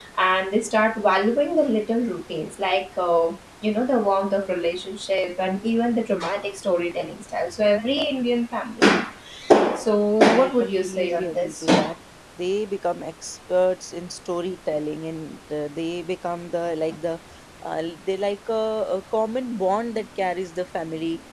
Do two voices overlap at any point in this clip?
Yes, from 10.4 s

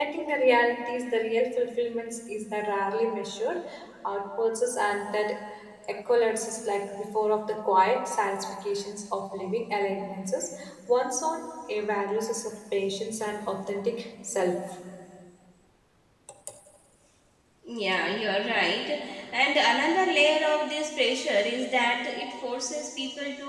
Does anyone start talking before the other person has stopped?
No

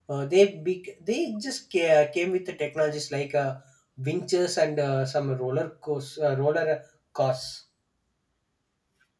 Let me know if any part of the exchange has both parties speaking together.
No

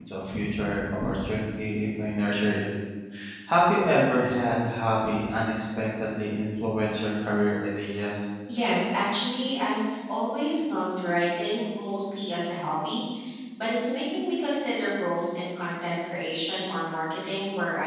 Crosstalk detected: No

